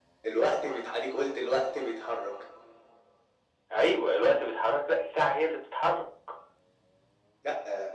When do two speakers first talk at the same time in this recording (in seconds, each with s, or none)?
none